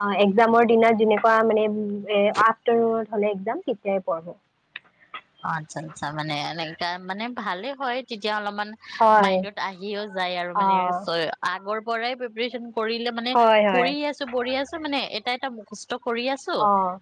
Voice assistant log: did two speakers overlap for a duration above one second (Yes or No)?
No